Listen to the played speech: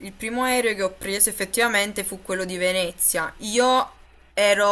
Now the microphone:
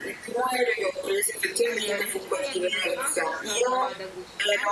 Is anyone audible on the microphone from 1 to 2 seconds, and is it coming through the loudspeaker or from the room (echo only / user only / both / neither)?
both